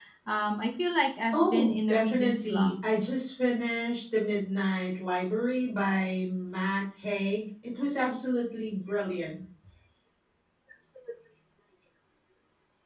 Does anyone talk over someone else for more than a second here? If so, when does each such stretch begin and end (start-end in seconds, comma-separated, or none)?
1.3-2.7